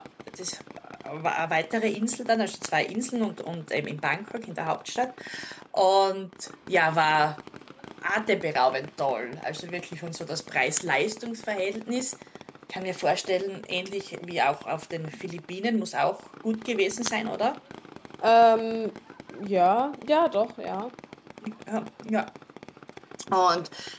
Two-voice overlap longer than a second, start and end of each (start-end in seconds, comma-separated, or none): none